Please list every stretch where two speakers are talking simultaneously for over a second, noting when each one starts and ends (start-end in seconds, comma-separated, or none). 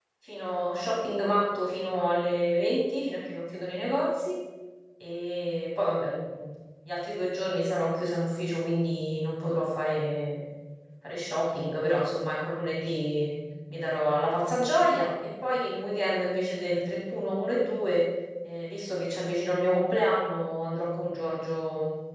none